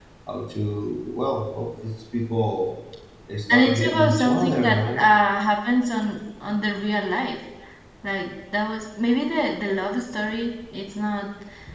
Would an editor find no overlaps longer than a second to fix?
No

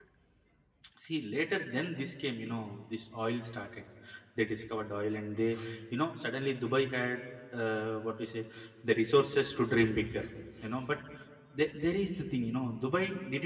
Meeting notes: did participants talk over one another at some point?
No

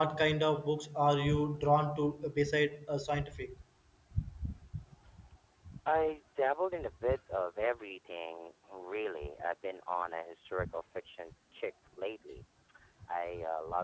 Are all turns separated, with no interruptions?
Yes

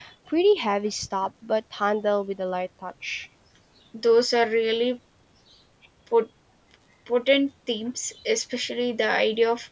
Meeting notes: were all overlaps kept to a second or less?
Yes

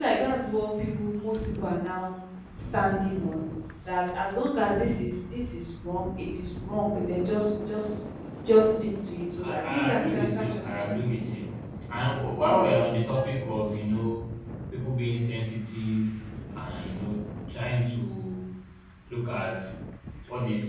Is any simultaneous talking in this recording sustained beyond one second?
Yes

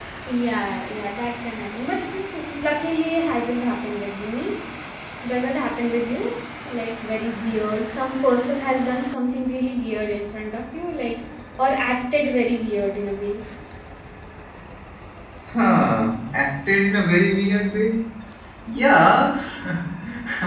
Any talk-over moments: No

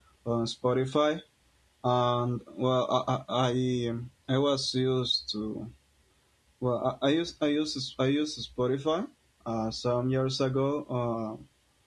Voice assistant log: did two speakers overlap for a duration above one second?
No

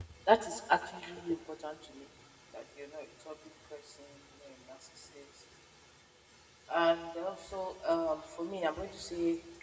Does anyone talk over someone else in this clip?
No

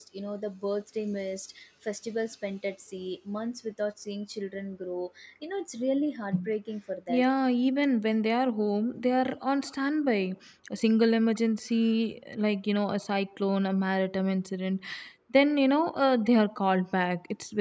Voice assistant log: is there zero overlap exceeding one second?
Yes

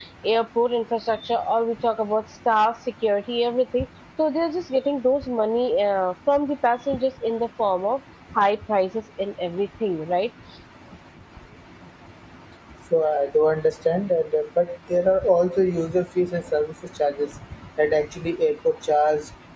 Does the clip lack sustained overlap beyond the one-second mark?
Yes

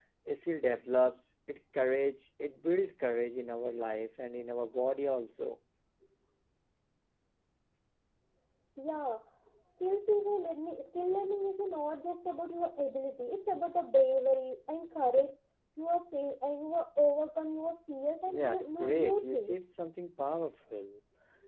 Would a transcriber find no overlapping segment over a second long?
No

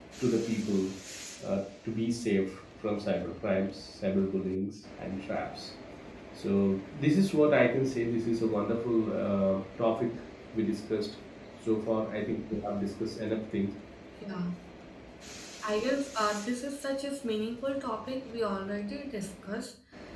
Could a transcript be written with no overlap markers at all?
Yes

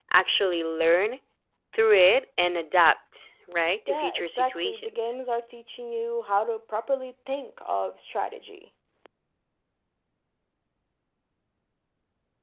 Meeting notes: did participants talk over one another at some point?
Yes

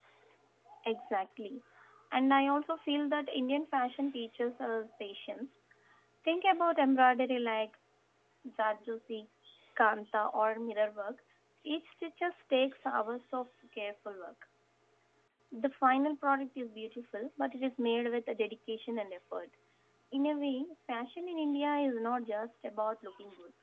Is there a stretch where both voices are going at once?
No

